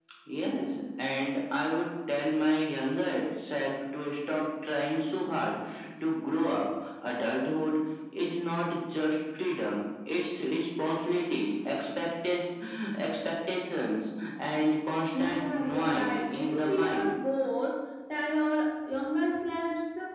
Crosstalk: present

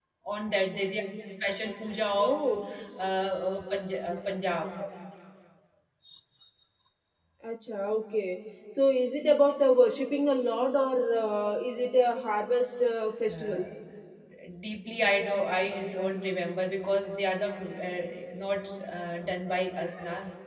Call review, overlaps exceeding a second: none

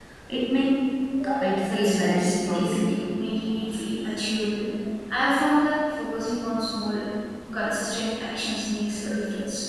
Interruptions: present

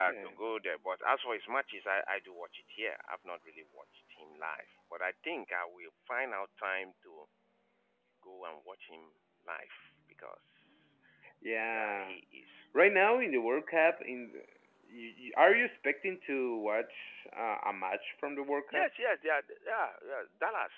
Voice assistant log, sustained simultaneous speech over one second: none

